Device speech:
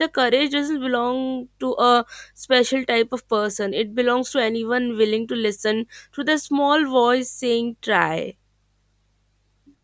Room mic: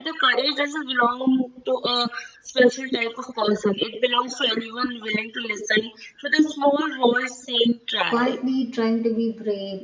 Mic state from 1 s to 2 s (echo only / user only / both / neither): echo only